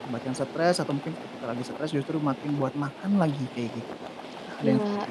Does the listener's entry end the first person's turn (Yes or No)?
Yes